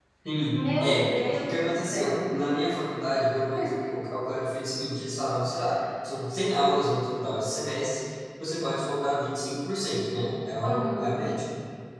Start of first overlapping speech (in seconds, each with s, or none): 0.5 s